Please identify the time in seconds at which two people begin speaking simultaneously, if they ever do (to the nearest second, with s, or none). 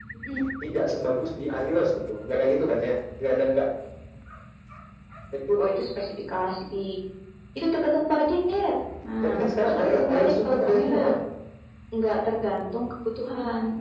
9 s